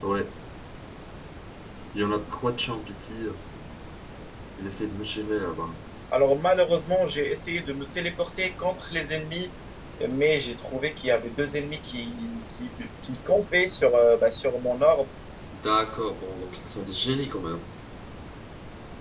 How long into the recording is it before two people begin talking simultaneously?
none

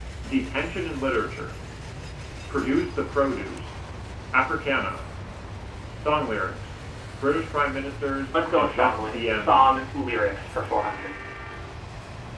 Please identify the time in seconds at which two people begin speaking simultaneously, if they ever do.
8.3 s

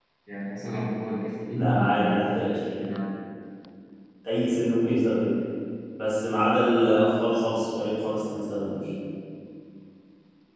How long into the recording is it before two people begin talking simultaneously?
1.5 s

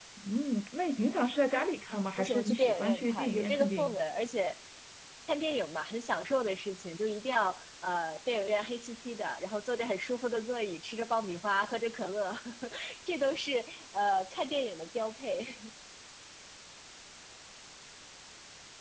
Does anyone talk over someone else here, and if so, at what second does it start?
2.2 s

